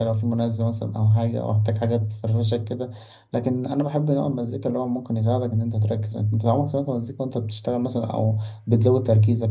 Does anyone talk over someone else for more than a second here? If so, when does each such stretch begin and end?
none

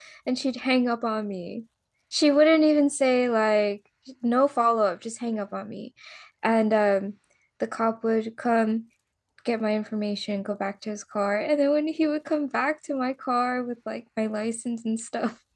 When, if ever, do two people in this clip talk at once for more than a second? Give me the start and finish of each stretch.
none

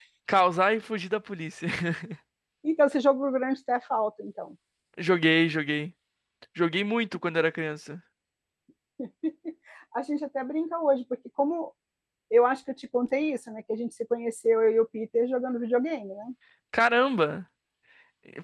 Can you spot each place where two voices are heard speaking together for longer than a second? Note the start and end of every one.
none

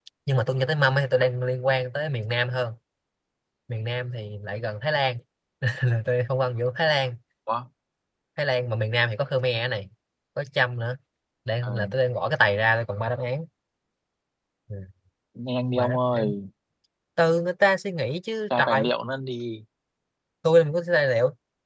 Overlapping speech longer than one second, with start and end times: none

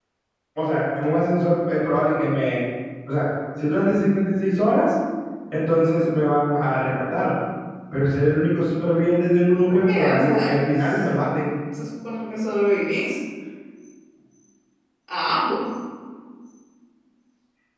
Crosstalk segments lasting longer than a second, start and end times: 9.5-11.0

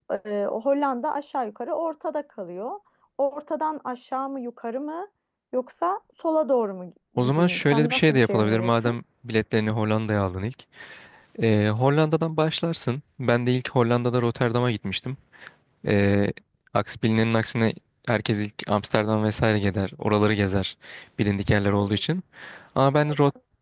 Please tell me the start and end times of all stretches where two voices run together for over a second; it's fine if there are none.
7.2-8.9

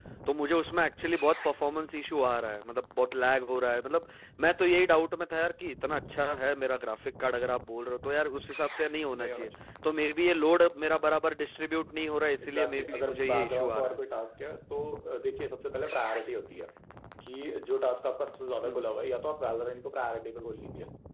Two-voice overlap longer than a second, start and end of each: 12.4-14.0

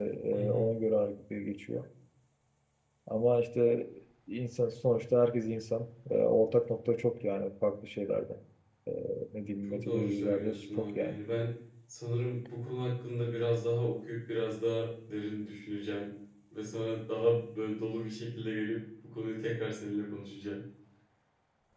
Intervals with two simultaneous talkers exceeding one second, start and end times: 9.6-11.2

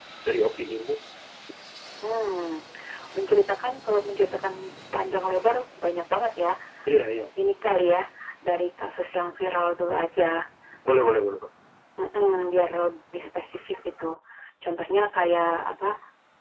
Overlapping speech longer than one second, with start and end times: none

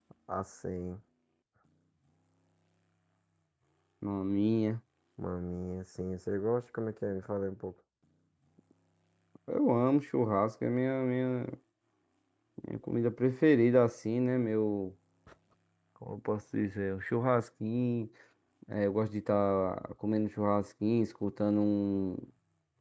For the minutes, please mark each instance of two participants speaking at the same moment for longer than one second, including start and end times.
none

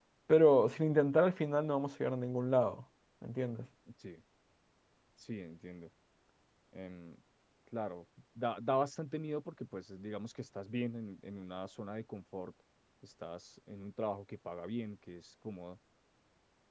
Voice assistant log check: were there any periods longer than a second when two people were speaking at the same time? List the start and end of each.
none

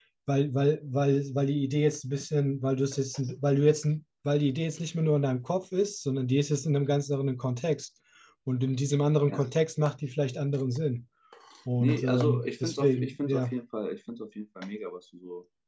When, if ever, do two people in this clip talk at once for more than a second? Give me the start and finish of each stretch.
11.8-13.5

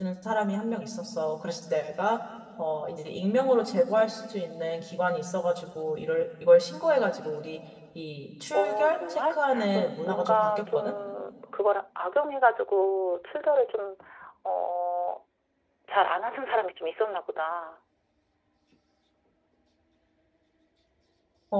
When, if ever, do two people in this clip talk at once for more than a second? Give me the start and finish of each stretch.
8.5-10.9

